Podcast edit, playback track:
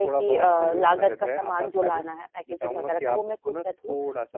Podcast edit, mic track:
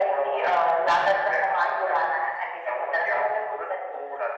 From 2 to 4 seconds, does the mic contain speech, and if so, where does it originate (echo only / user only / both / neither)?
echo only